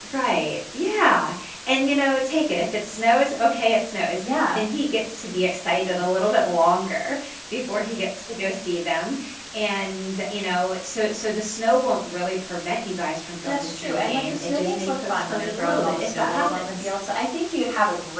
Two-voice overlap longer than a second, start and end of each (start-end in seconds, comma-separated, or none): 13.4-16.9